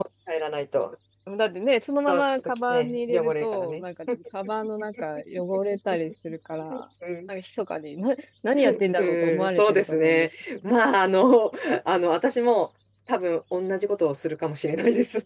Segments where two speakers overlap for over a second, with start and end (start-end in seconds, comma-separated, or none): 2.1-3.8, 9.0-10.3